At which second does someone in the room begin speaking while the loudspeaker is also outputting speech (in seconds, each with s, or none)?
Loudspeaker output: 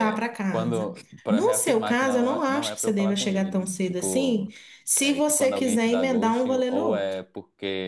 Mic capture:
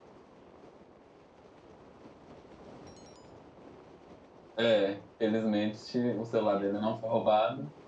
4.6 s